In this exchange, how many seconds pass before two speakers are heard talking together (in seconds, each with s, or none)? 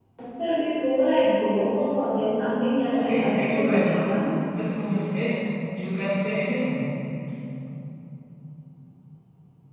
2.9 s